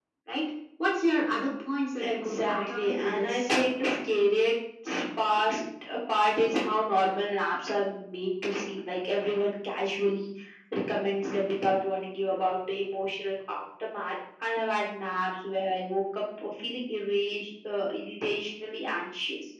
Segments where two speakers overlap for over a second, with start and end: 2.0-3.5

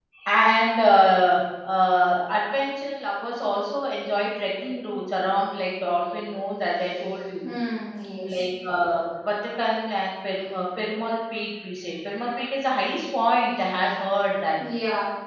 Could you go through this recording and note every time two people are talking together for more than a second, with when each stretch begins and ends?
none

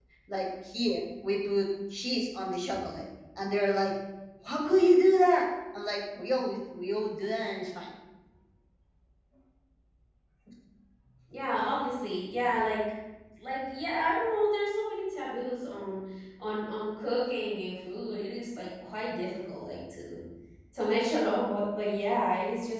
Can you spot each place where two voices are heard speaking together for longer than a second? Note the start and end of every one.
none

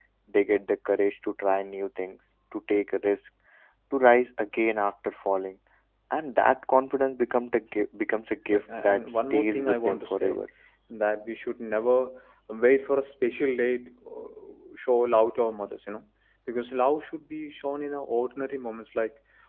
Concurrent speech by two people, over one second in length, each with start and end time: 8.4-10.4

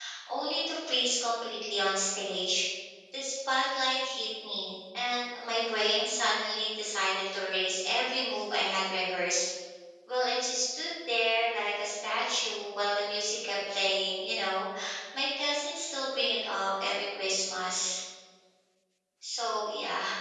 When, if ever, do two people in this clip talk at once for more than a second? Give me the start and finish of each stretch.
none

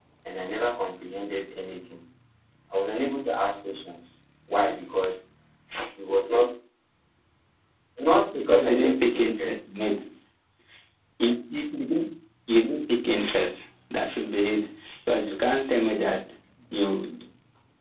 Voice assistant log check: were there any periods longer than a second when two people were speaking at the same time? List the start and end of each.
8.1-9.6

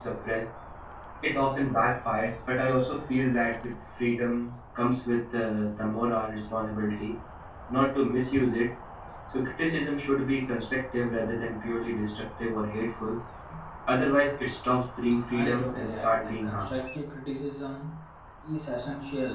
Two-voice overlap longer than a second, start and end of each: 15.3-16.7

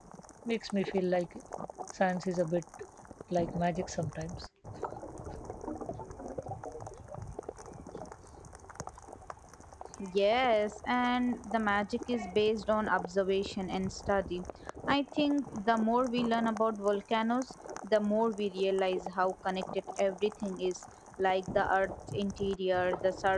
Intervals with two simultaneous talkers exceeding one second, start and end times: none

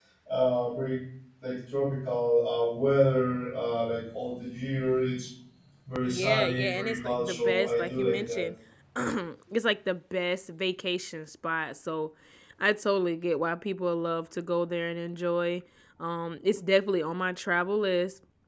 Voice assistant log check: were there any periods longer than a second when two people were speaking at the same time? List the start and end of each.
6.0-8.5

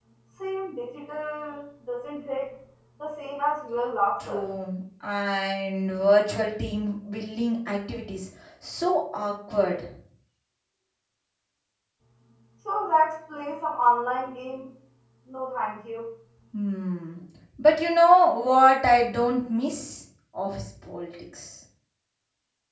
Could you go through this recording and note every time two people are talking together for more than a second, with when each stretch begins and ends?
none

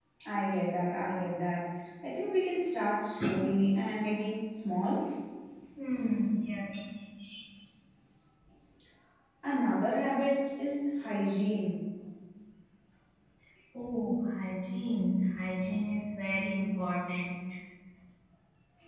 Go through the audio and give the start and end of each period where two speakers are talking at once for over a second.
none

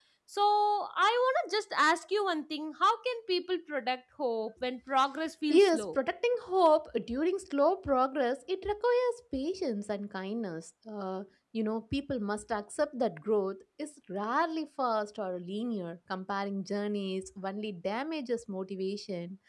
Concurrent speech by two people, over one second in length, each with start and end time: none

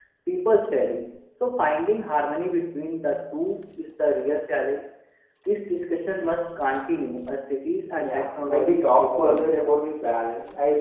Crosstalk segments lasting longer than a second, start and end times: 8.1-9.6

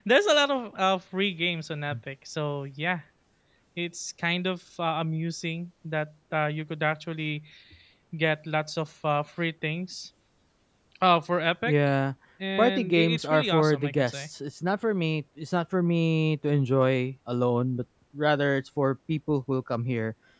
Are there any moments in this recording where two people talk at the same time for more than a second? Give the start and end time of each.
12.6-14.2

